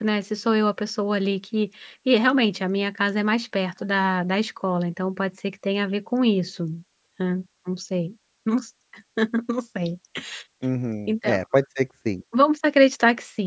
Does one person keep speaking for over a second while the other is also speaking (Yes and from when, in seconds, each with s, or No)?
No